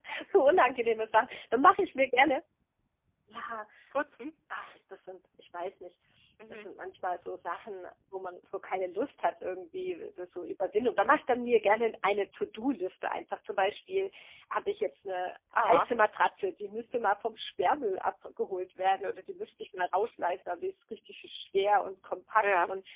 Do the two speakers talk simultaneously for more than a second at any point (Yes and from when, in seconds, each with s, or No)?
No